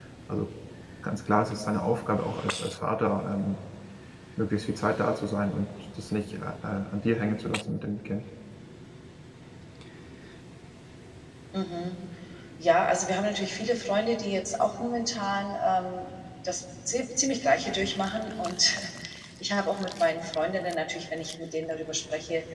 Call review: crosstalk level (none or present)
none